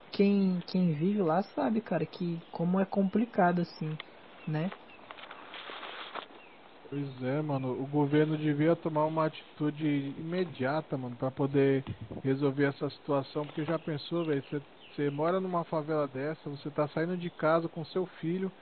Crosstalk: none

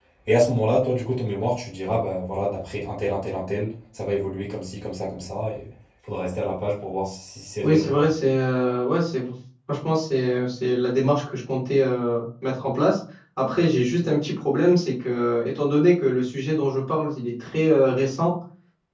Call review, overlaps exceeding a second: none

